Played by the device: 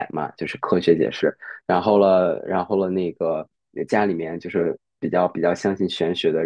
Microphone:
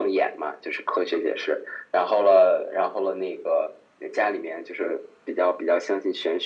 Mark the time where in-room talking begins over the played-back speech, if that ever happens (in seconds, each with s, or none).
none